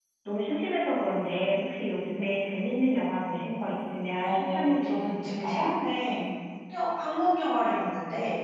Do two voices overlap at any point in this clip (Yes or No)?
Yes